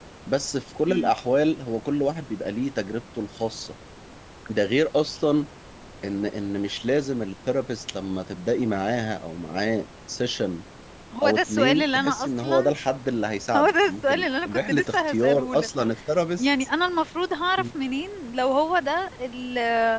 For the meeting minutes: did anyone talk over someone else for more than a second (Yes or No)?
Yes